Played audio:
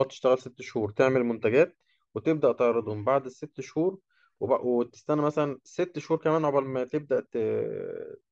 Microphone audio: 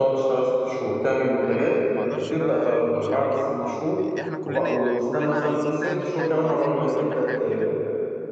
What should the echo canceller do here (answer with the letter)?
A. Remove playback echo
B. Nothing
A